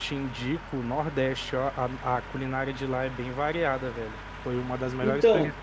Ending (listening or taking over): listening